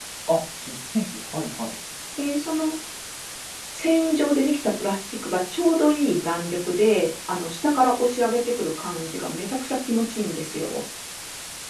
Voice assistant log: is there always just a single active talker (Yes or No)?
Yes